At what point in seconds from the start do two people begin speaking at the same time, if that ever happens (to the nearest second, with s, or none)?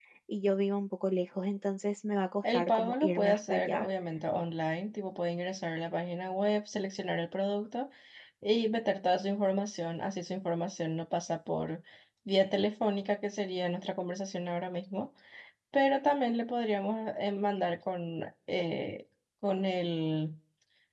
2 s